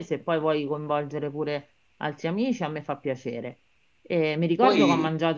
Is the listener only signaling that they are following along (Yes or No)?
Yes